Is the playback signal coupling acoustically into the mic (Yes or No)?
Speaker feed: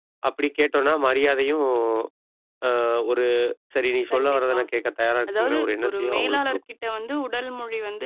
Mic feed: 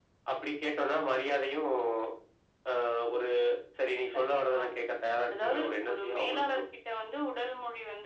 Yes